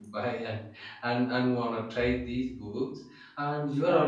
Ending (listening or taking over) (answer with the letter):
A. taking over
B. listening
B